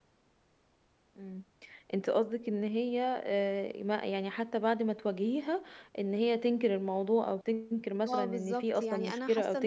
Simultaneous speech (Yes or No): Yes